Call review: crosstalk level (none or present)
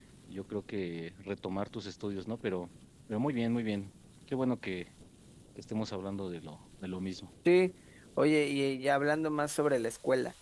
none